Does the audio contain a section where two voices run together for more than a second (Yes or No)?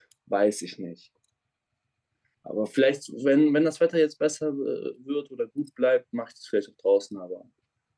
No